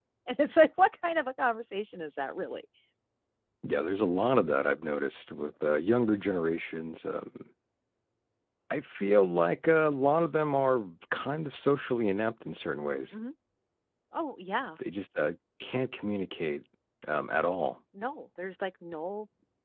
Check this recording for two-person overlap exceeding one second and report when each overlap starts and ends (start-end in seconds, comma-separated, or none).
none